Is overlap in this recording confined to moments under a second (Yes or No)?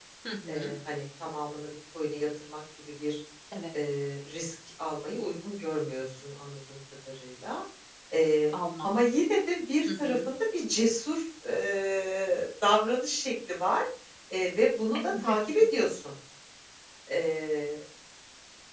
Yes